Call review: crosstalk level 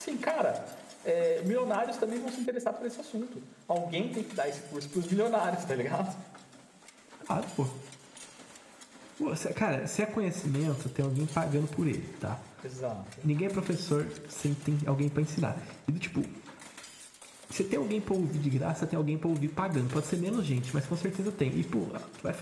none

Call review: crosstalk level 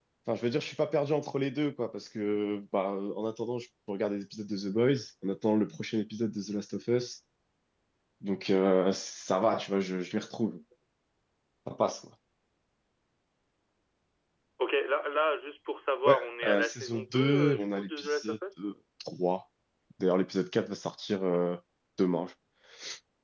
present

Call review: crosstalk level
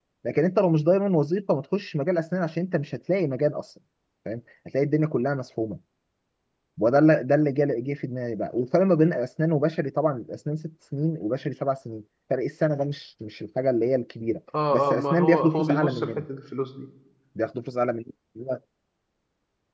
present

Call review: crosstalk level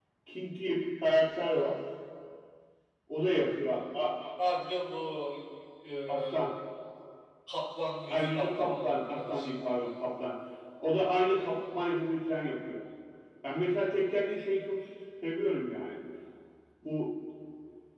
present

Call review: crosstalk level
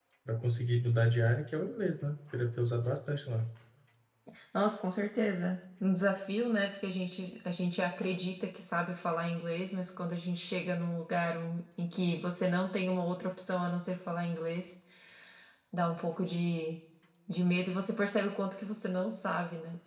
none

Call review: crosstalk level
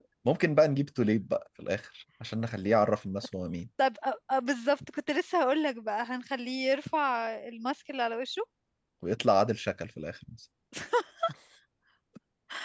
none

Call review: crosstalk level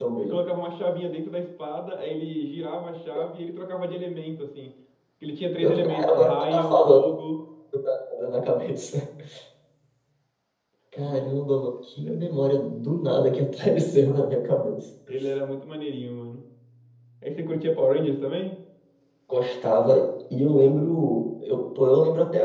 present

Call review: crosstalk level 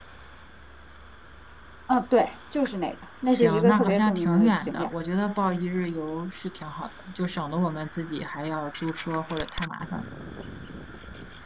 present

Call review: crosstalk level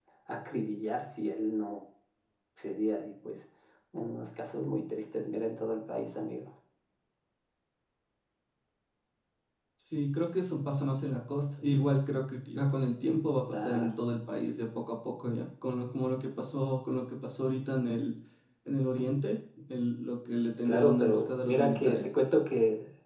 present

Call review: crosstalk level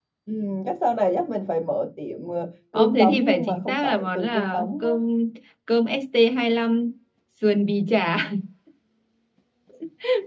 present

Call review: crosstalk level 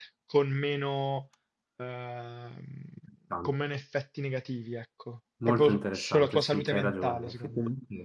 present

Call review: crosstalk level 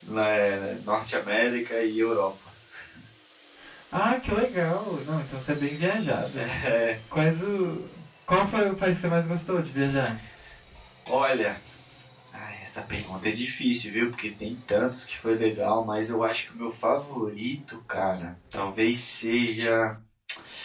none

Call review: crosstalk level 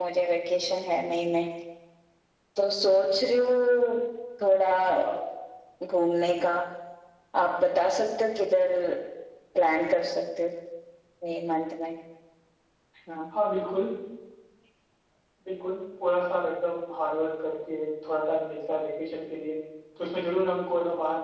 none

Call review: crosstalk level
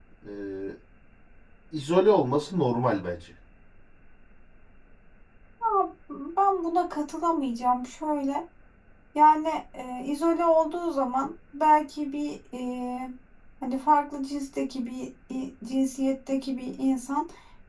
none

